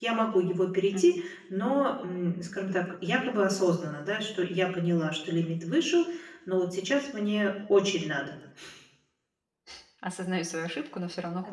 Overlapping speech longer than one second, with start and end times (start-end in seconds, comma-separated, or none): none